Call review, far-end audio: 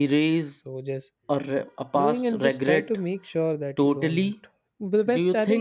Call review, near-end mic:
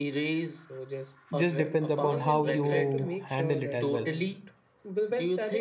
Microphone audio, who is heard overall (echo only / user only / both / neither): both